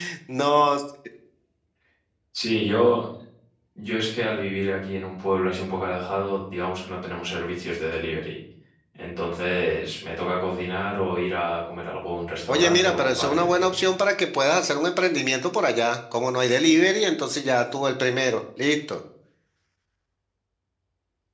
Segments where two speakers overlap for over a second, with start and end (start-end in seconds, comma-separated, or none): 12.5-13.8